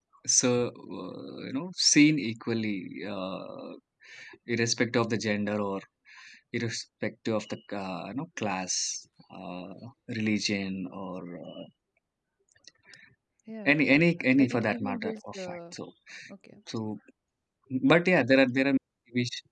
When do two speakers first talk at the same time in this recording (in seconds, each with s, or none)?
14.4 s